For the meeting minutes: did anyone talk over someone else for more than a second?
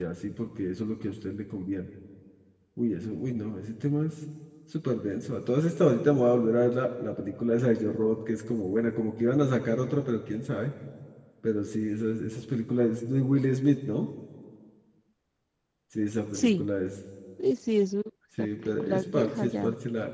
Yes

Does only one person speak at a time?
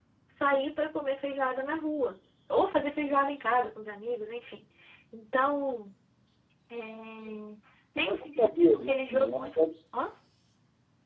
No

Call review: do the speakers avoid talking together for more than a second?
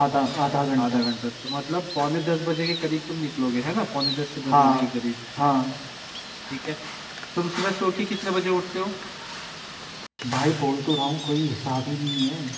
Yes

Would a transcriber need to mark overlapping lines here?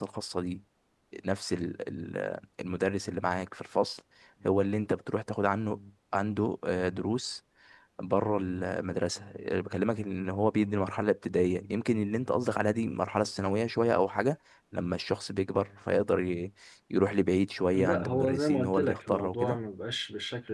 Yes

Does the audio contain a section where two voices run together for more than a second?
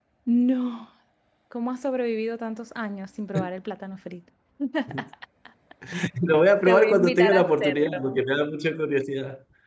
Yes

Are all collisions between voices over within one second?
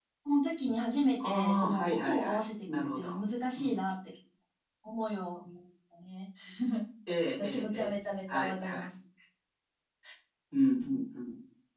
No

